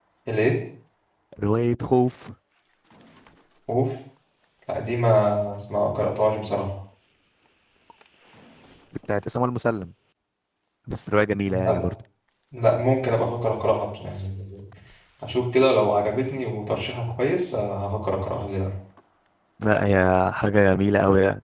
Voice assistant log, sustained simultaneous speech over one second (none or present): none